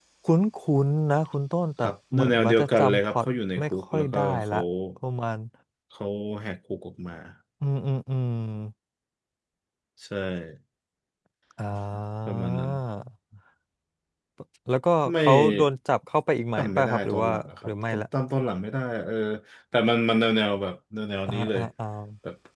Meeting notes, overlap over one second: present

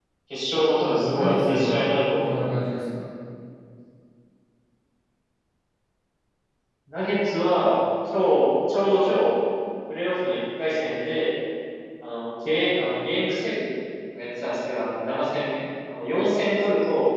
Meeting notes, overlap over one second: present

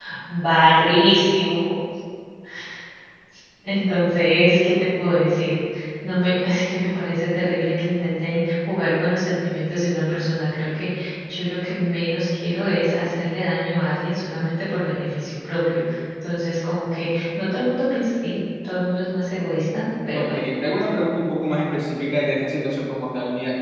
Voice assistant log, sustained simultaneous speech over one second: none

